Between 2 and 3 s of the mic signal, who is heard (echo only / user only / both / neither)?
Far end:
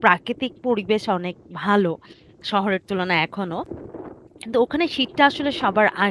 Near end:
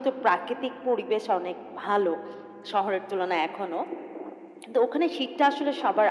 echo only